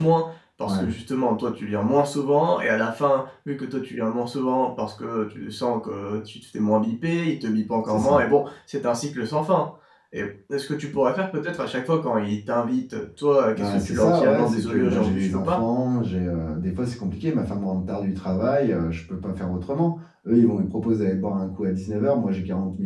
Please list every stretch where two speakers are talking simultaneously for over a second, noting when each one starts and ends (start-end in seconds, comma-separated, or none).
13.5-15.6